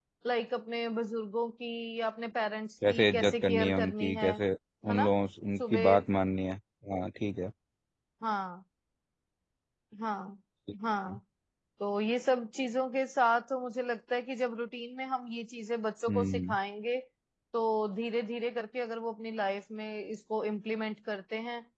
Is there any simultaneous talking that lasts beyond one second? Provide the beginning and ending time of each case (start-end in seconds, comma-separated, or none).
2.9-4.3